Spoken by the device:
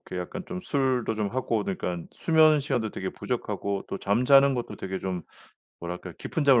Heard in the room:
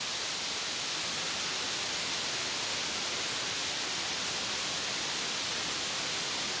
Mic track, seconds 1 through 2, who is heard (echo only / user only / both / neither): neither